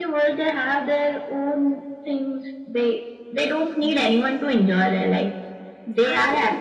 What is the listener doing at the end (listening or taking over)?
listening